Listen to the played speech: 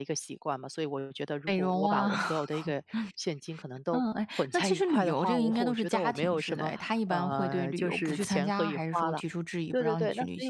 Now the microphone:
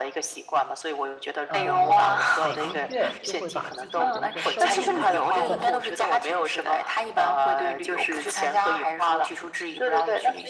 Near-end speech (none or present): present